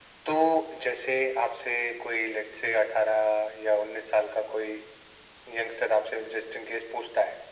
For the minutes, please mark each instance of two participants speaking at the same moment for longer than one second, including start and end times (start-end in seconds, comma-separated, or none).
none